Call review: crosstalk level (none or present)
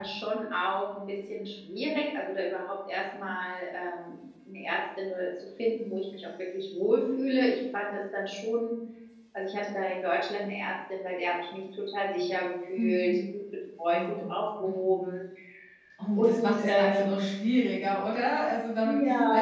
present